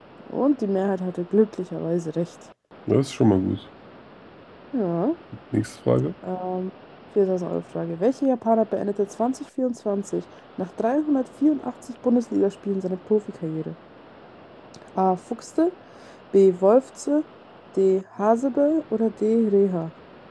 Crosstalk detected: No

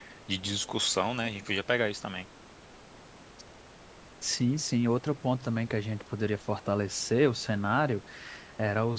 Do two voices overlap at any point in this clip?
No

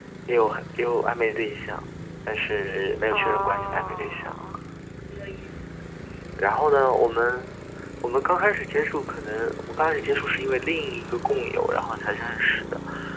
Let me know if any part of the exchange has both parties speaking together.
Yes, from 3.1 s

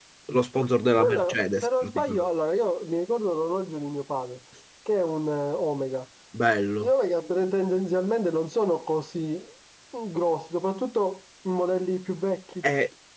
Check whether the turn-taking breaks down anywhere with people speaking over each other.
Yes, from 1.0 s

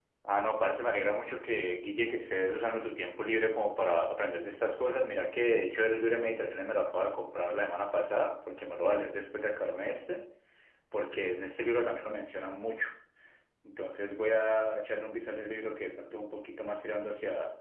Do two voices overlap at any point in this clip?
No

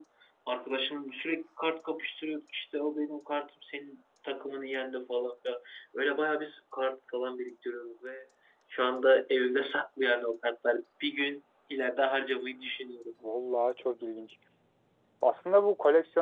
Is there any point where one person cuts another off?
No

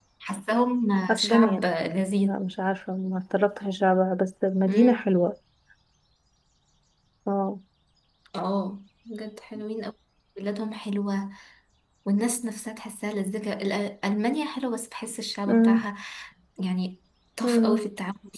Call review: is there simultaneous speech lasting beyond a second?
No

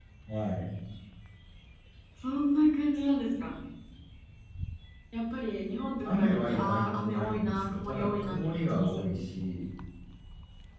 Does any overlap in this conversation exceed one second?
Yes, from 6.0 s

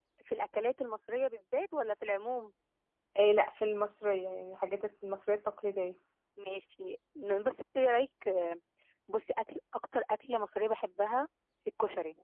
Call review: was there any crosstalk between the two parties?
No

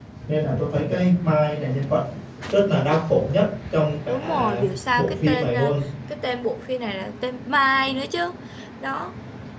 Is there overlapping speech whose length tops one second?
Yes, from 4.1 s

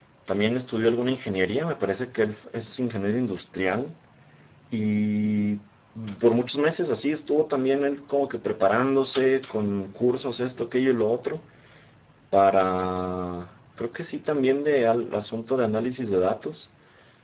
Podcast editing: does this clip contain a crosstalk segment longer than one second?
No

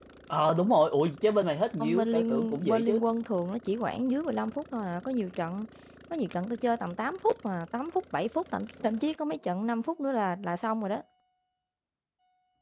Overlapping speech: Yes, from 1.8 s

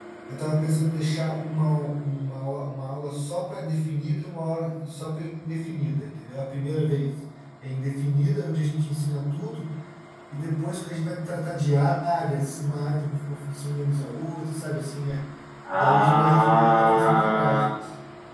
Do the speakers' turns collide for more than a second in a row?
Yes, from 15.7 s

